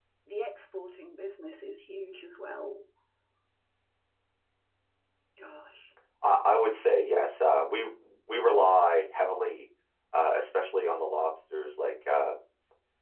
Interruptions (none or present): none